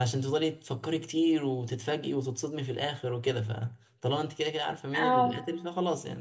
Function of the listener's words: listening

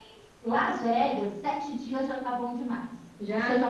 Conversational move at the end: listening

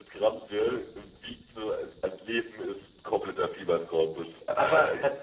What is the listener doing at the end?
taking over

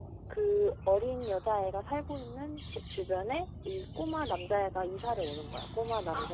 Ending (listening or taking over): taking over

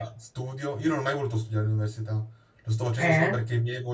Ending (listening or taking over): listening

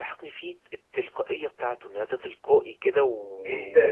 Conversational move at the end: listening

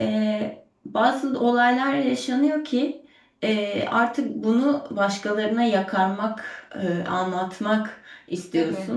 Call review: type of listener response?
listening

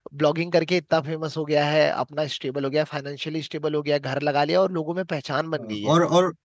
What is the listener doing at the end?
taking over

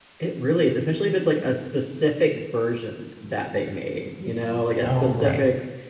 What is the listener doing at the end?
listening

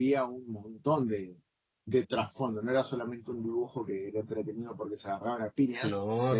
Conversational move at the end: listening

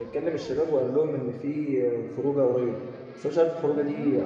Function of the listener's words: listening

